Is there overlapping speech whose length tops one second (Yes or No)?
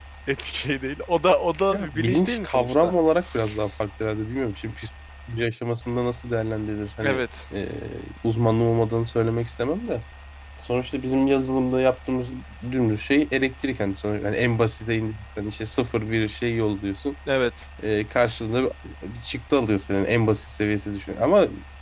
Yes